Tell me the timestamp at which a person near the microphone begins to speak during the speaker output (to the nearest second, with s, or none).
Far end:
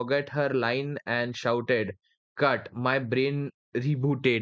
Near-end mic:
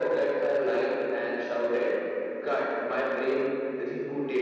none